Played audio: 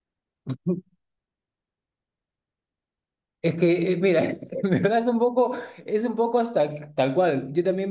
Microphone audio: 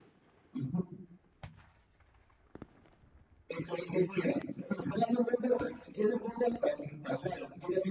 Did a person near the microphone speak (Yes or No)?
No